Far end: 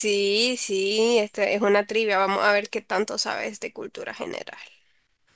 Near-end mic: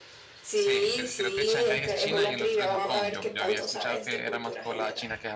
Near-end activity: present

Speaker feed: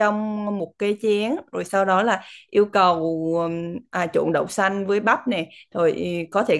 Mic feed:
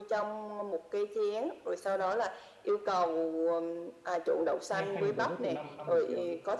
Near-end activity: present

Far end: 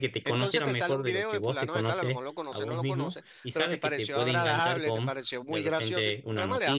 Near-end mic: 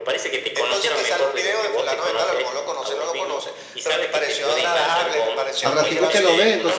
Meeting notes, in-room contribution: present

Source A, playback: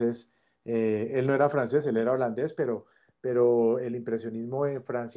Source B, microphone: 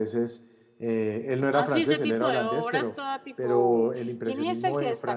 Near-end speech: present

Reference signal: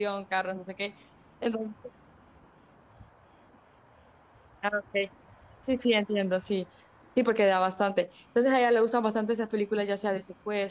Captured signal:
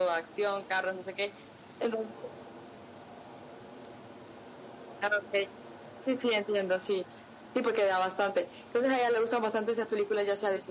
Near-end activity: none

